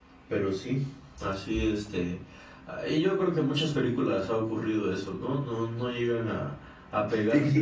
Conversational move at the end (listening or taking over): taking over